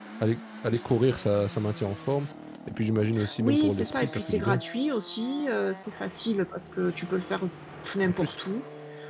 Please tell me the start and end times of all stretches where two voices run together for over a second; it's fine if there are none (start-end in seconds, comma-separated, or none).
3.4-4.6